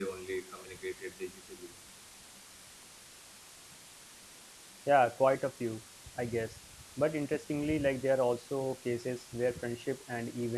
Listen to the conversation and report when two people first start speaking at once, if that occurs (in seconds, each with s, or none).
none